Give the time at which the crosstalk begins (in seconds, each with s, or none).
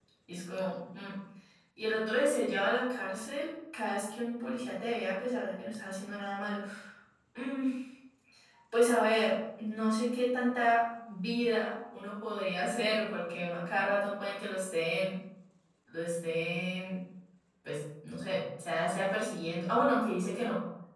none